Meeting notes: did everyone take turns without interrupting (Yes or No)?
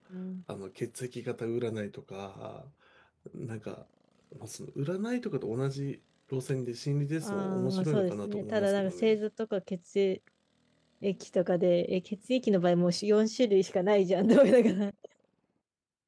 No